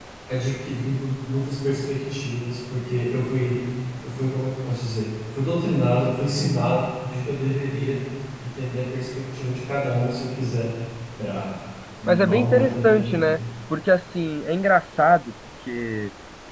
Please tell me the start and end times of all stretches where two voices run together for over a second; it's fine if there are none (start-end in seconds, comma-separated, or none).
12.1-13.3